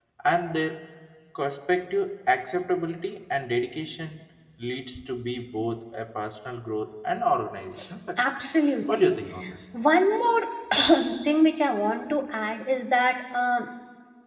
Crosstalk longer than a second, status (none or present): none